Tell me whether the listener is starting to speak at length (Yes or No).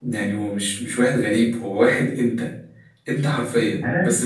No